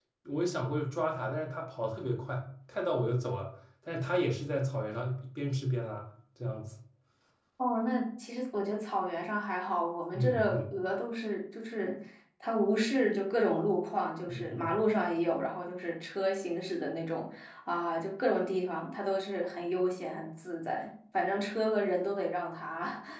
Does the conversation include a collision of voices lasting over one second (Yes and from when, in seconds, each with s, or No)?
No